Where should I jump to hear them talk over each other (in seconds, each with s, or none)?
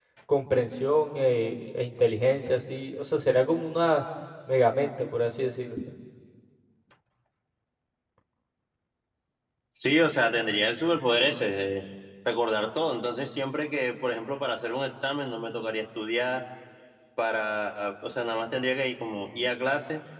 none